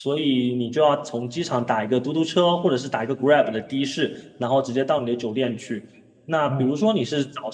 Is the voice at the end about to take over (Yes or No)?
No